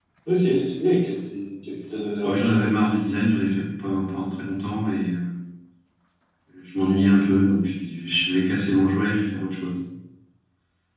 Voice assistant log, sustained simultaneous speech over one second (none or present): none